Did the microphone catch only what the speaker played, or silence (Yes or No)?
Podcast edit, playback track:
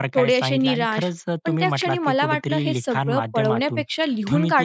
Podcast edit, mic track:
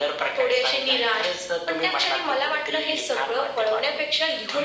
Yes